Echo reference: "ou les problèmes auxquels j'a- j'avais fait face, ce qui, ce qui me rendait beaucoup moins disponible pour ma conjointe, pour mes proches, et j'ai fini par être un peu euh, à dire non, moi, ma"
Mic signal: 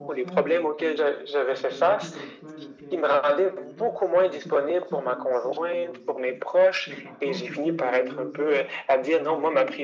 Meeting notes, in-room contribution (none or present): present